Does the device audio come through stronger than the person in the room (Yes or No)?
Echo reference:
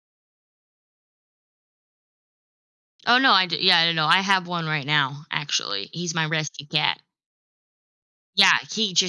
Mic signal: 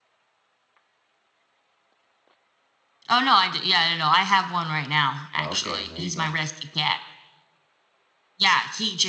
Yes